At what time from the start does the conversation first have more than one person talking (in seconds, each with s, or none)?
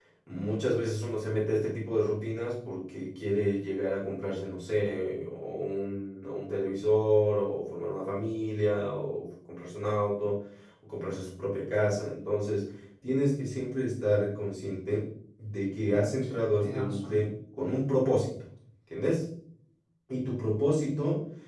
15.9 s